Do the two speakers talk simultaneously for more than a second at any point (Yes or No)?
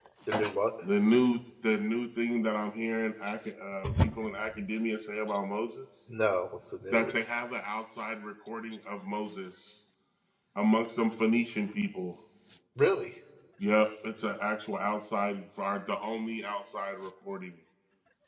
No